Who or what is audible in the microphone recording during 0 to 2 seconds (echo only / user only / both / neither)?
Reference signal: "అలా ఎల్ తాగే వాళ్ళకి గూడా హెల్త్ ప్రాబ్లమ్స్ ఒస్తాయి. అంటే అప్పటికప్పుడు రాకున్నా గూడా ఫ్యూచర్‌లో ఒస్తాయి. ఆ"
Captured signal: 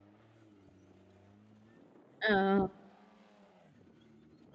neither